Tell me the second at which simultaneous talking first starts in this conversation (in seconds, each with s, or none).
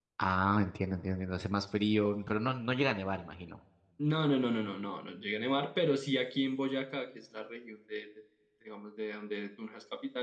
none